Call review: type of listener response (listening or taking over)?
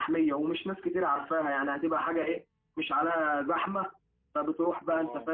listening